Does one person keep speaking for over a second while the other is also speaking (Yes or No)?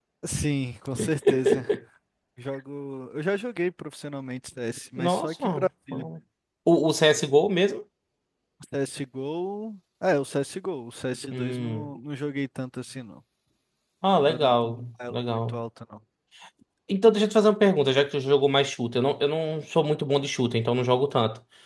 Yes